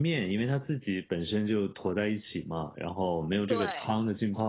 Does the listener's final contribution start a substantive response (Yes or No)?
No